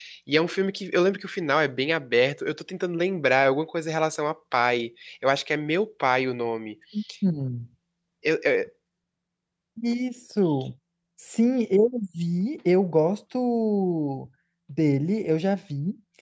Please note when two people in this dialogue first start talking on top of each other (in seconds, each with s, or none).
none